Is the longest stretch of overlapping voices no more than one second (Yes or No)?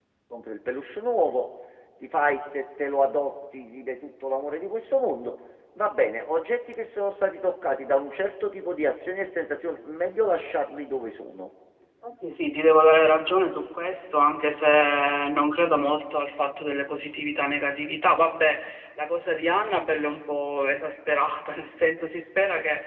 Yes